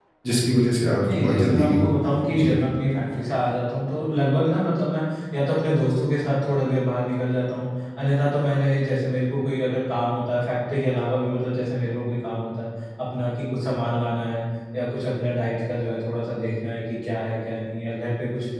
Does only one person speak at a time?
No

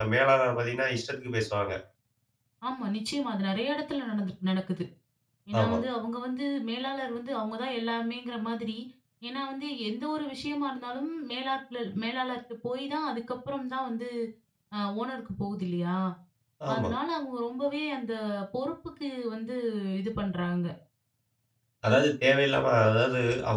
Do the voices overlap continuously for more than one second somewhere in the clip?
No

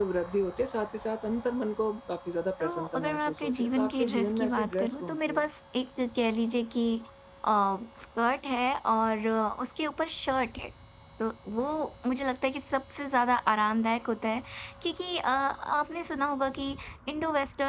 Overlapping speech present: Yes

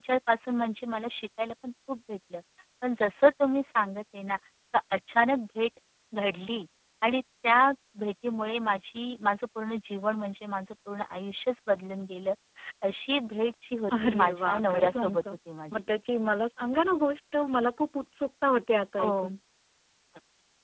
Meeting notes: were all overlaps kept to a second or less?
No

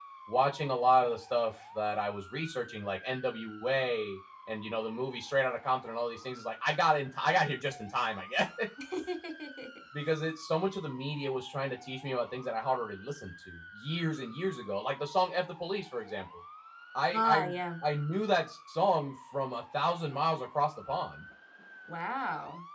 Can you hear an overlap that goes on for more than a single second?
No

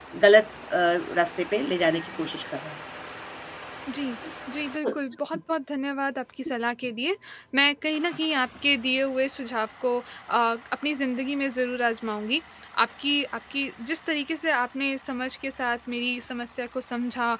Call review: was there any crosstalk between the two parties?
No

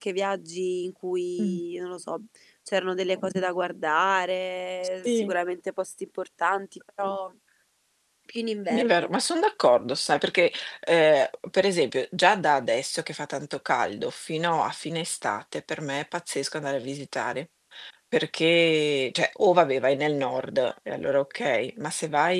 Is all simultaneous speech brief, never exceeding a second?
Yes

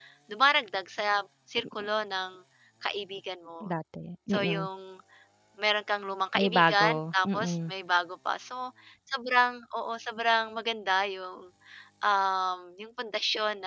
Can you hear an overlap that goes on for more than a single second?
Yes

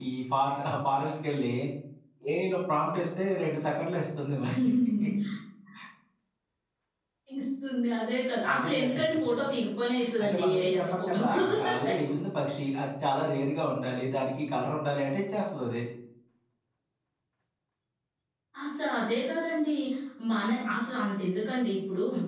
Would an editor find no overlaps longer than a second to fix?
No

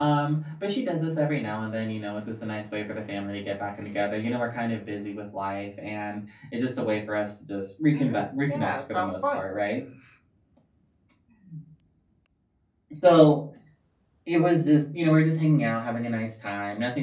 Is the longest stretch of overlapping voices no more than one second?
No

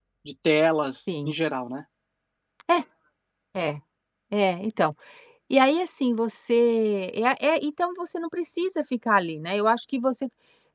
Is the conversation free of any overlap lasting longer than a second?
Yes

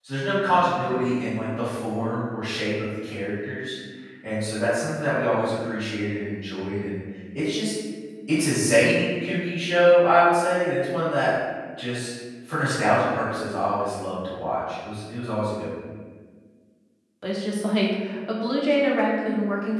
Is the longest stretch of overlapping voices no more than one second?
Yes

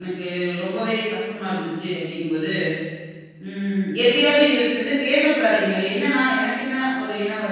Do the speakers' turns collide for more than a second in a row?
No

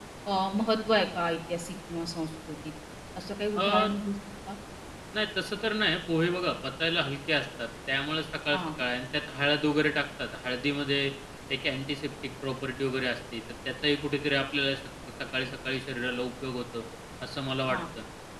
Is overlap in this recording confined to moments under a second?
Yes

